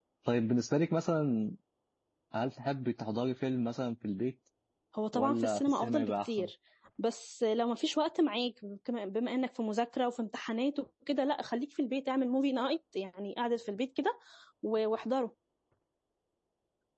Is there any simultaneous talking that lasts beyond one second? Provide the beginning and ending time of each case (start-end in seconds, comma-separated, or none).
5.1-6.5